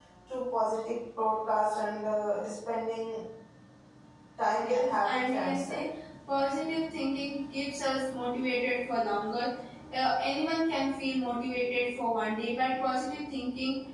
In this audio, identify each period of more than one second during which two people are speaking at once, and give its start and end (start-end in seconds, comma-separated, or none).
4.6-5.9